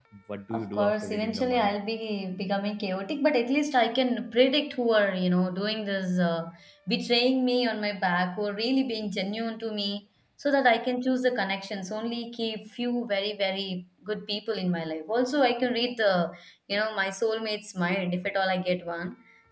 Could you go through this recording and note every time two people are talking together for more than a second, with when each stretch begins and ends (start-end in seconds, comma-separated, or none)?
0.5-1.8